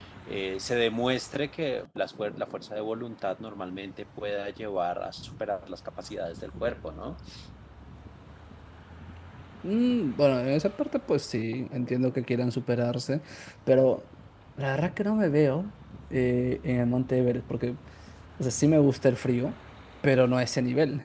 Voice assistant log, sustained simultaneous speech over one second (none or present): none